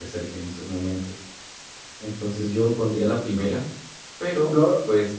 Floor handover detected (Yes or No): No